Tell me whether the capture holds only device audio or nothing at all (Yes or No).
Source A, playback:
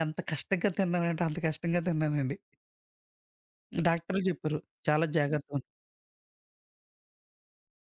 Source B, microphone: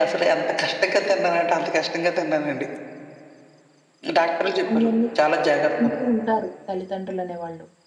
No